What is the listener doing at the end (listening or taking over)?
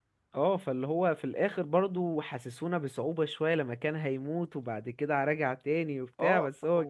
taking over